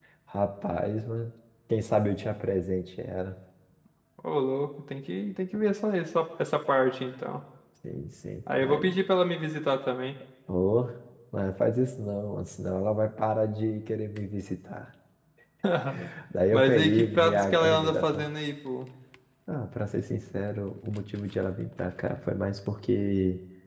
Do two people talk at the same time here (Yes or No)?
Yes